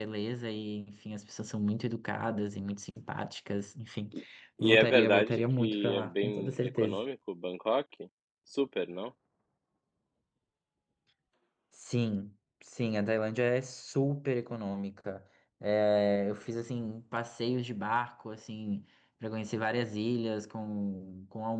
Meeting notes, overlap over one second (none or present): present